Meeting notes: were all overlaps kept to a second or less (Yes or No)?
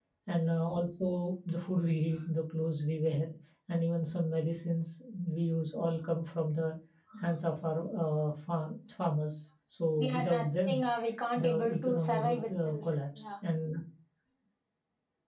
No